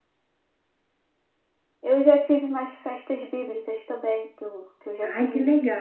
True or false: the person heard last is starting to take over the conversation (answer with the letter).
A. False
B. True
B